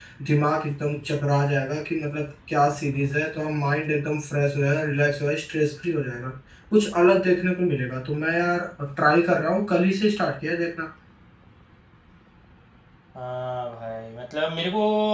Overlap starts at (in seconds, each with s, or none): none